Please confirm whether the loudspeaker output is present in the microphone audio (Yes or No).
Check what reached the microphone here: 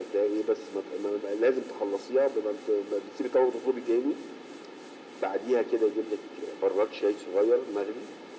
Yes